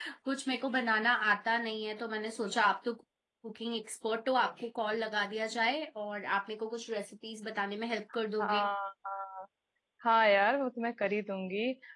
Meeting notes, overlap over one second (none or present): none